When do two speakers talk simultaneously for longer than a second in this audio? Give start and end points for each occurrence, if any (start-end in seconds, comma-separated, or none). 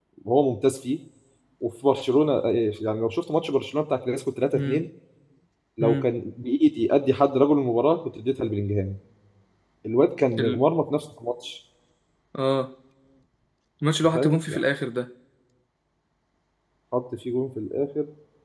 none